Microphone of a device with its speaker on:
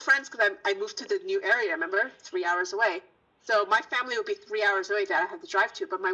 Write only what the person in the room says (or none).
none